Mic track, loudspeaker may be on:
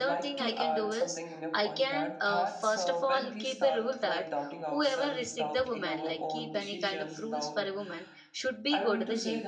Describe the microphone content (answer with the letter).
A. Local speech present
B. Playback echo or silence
A